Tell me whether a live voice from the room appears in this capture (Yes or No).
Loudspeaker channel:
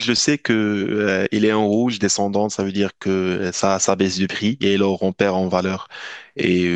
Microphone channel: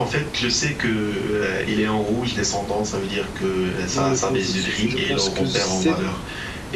Yes